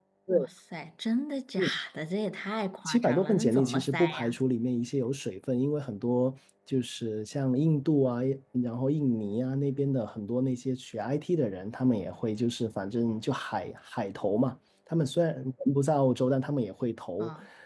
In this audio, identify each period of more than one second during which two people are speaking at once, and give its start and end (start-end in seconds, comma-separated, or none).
2.9-4.3